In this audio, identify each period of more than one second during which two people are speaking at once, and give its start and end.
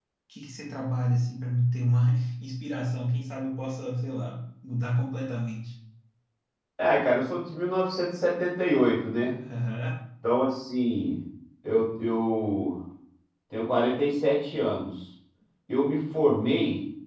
none

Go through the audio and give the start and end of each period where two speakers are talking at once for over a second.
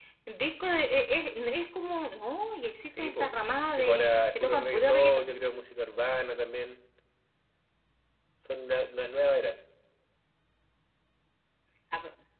3.7-5.3

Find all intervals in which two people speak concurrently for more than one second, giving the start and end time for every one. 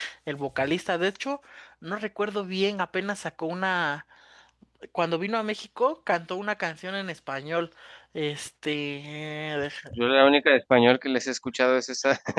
none

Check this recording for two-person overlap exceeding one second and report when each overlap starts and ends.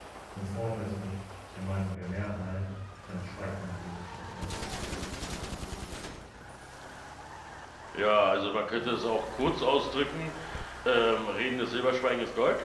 none

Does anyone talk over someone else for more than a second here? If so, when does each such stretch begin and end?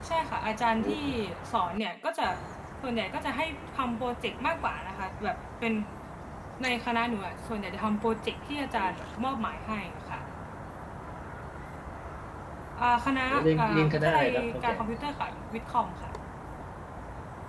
13.3-14.7

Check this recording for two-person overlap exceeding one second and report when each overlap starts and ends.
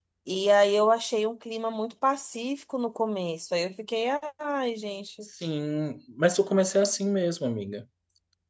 none

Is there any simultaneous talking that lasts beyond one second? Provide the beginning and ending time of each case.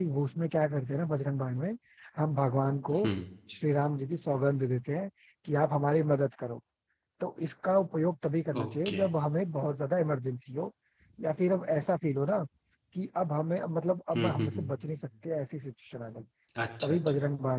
none

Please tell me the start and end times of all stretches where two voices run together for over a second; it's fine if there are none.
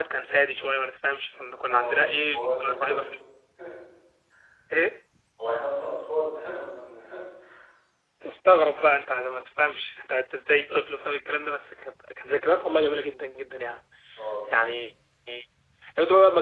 1.7-3.0

